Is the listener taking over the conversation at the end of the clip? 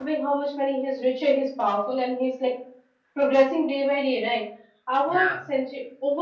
No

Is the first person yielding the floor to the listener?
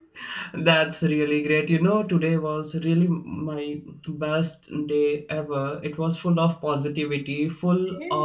No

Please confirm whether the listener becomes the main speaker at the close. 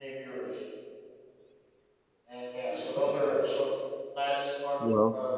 No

